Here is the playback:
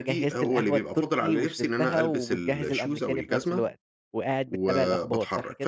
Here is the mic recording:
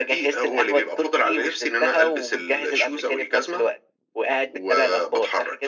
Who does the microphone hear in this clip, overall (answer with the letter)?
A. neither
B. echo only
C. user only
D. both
B